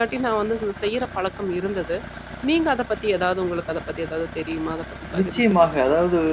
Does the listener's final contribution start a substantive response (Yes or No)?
Yes